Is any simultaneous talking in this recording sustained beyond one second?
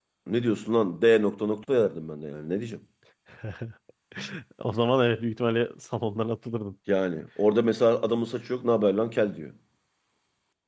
No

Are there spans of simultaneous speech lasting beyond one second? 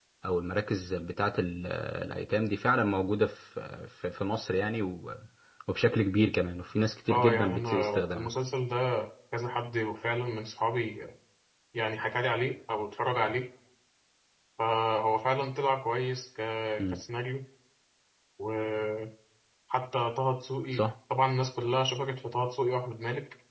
Yes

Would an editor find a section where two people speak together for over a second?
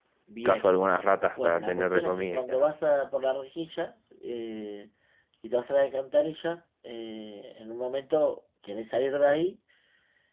Yes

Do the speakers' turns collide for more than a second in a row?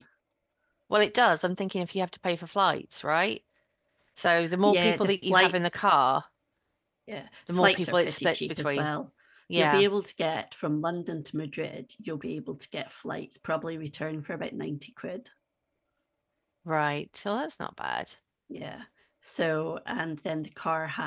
Yes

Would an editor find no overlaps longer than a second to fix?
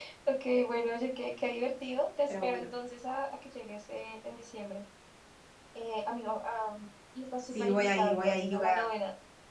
No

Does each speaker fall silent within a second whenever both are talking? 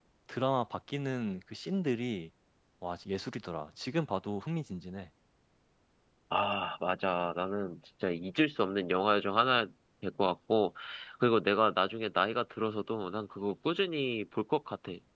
Yes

